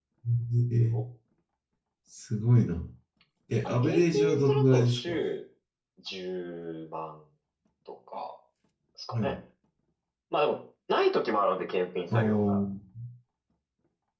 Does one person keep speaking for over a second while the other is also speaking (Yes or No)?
Yes